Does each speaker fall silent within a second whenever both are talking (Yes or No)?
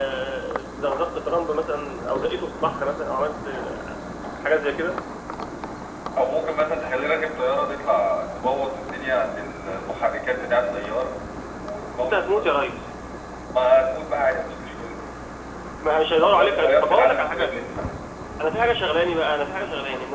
No